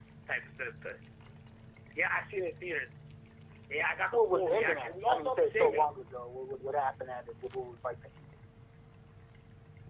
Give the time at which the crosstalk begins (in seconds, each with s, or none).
4.1 s